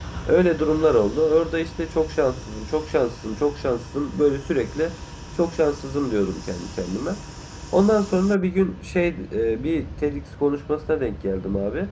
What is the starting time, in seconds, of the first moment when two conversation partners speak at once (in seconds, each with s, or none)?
none